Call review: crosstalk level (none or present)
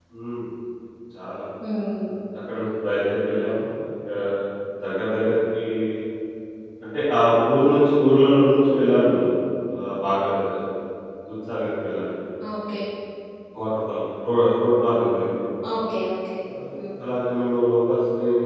none